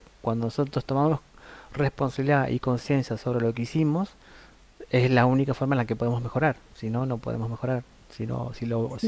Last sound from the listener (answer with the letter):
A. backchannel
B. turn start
A